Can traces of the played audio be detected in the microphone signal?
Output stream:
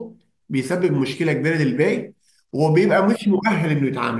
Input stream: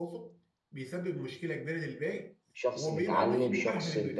Yes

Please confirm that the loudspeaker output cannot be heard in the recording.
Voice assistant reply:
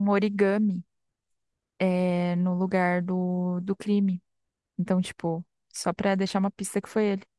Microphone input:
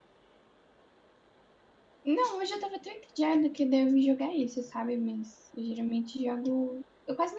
Yes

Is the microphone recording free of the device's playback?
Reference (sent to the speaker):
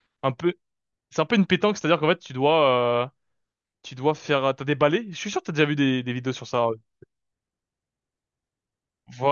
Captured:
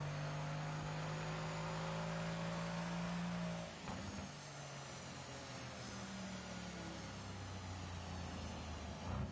Yes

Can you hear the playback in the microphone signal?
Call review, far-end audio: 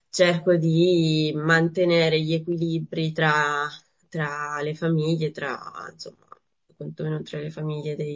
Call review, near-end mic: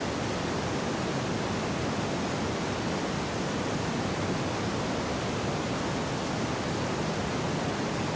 No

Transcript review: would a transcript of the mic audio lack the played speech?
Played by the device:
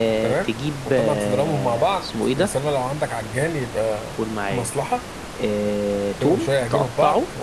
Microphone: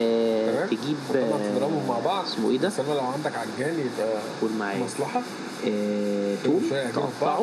No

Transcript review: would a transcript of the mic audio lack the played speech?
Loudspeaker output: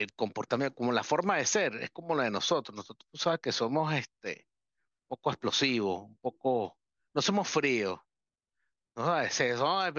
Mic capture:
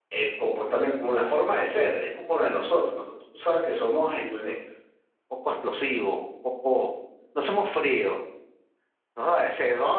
No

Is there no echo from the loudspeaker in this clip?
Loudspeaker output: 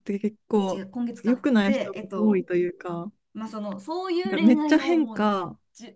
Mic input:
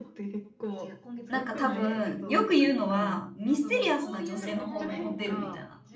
No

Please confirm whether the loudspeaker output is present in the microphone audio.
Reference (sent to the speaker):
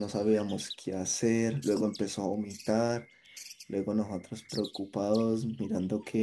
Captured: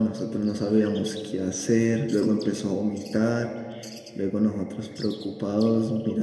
Yes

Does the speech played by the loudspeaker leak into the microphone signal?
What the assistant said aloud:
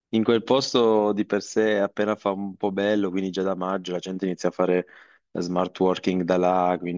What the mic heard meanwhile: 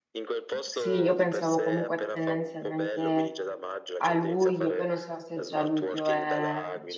Yes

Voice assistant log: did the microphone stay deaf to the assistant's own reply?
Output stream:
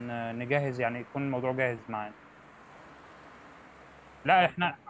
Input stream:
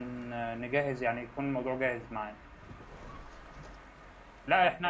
No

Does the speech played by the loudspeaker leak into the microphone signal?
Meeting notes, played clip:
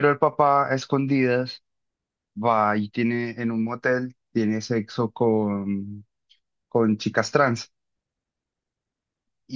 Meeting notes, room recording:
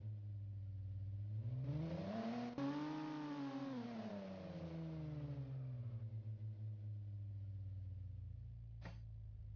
No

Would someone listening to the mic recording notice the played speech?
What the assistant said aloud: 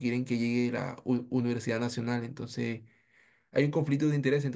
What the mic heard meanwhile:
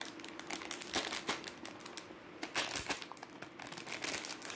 No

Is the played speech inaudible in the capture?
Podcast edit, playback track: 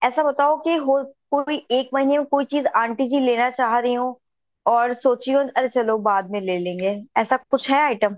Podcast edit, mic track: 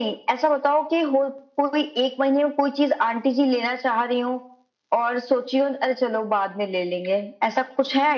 No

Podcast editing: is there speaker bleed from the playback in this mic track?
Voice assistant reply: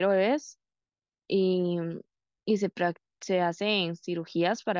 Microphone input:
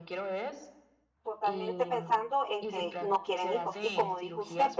Yes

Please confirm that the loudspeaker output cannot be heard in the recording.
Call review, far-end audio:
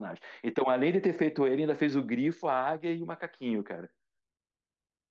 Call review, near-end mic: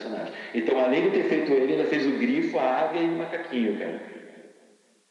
No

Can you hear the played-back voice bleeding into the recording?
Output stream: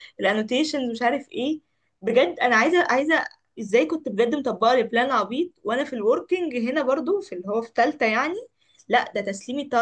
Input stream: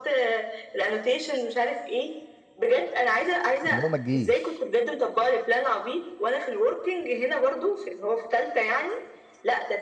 Yes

